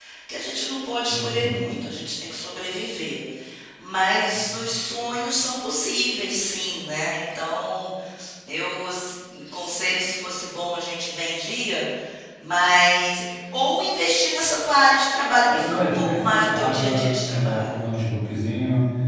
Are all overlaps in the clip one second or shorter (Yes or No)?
No